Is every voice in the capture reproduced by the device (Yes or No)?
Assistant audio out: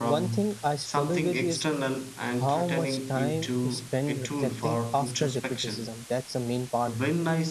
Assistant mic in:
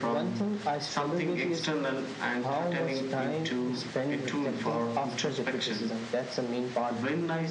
Yes